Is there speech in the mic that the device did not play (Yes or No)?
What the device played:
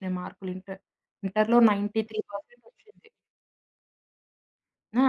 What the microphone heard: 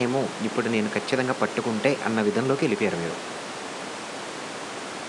Yes